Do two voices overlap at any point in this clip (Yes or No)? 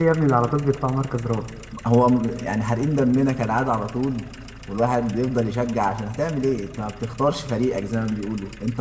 No